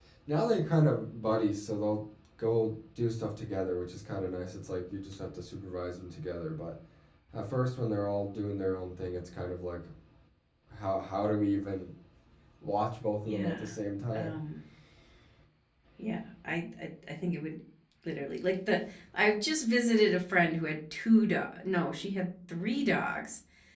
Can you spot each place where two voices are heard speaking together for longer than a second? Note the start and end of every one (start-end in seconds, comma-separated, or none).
none